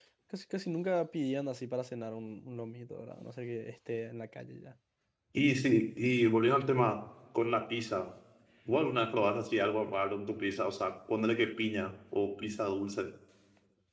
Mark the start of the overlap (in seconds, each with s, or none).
none